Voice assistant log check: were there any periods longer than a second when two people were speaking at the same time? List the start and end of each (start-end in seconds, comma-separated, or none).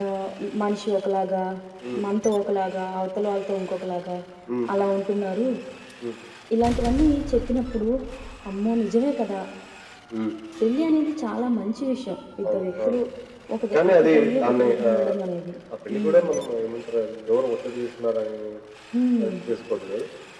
13.7-15.1